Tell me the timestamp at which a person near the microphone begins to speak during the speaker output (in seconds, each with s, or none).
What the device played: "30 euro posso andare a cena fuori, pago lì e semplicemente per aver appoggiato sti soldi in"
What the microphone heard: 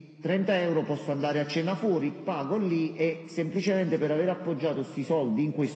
none